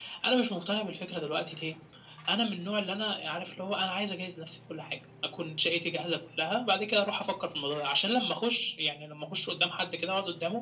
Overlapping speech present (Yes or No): No